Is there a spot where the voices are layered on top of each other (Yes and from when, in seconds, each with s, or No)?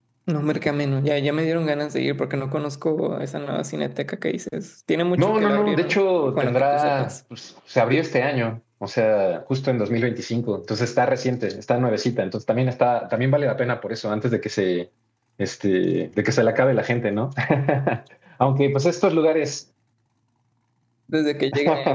Yes, from 5.2 s